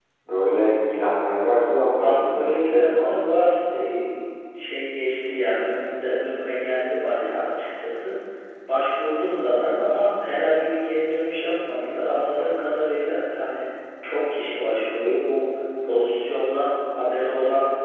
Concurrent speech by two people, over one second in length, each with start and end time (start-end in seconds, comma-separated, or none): 2.0-3.3